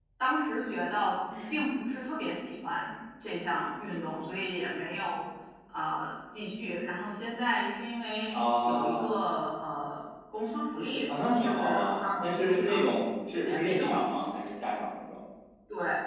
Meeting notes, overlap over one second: present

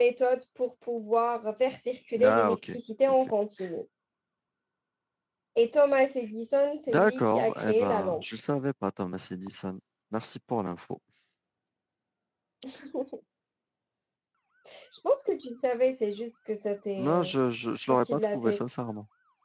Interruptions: present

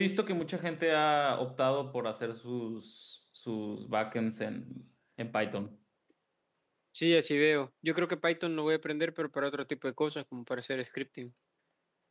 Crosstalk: none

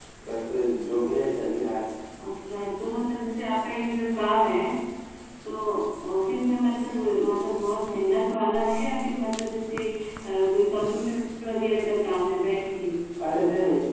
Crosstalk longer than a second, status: none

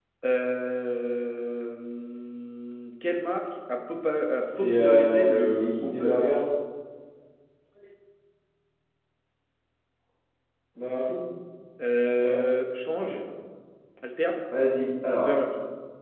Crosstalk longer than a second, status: present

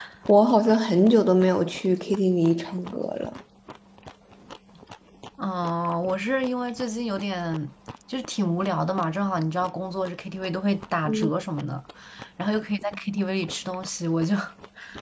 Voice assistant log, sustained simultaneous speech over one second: none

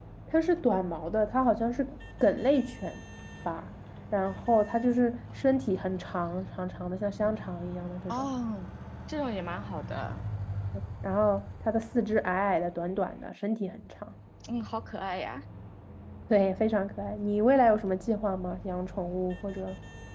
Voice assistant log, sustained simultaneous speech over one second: none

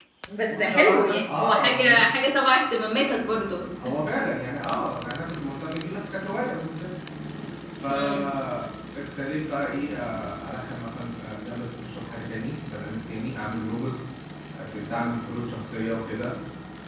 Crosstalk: present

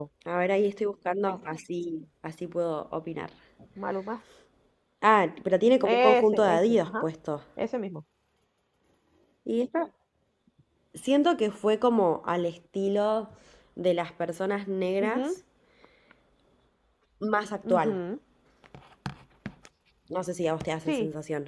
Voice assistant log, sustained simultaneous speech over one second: present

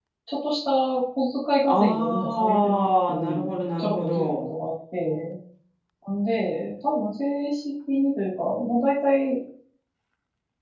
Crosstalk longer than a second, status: present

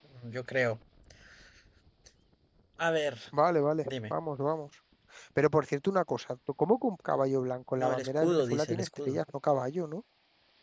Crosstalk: present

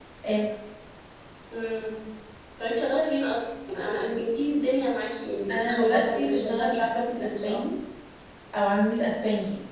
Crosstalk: present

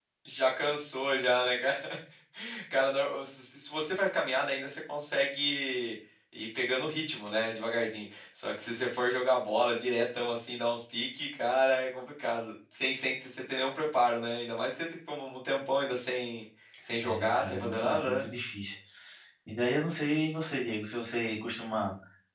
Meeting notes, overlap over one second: present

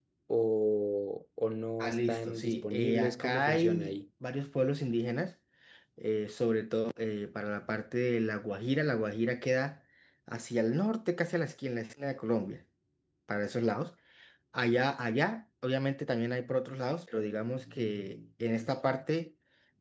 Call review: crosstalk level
present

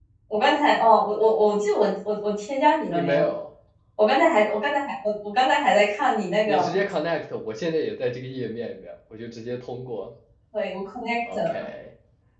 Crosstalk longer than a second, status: none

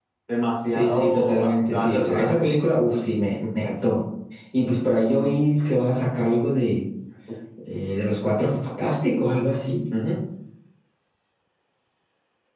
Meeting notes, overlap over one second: present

